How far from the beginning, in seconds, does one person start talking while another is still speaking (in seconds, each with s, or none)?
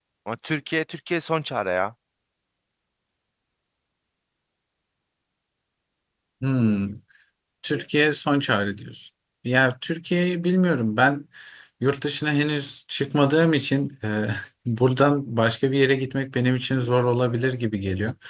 none